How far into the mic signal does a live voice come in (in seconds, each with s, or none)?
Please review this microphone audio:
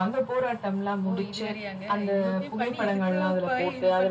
1.1 s